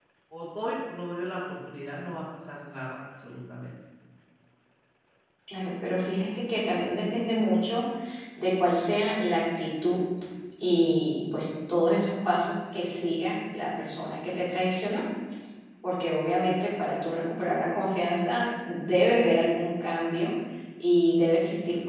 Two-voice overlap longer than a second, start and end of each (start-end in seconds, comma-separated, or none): none